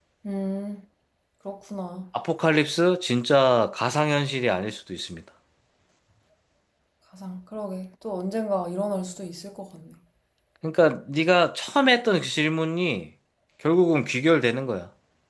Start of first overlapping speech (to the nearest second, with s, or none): none